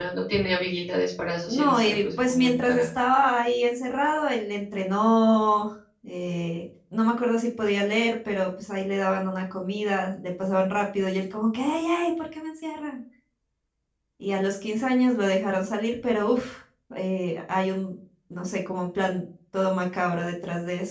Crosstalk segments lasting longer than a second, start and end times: 1.5-2.9

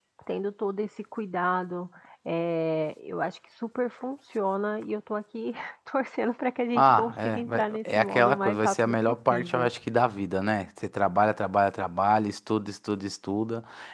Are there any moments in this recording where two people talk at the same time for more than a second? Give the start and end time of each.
6.8-9.7

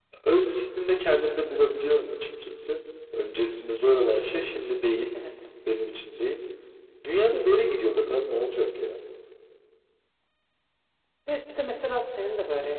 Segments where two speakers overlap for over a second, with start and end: none

